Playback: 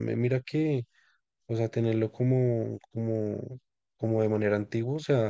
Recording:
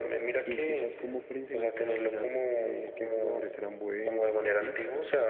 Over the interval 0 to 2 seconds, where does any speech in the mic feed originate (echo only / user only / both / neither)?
both